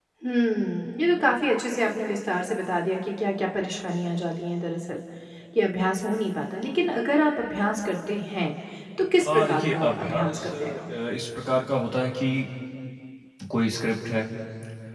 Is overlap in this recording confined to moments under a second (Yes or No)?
No